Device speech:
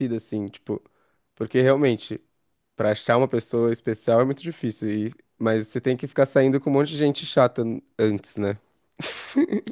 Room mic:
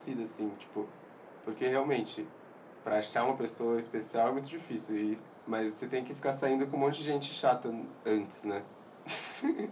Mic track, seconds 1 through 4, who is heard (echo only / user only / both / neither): echo only